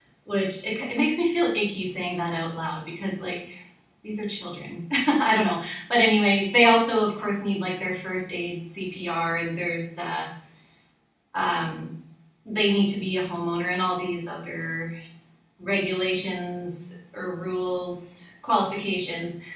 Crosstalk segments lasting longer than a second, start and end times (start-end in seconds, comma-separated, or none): none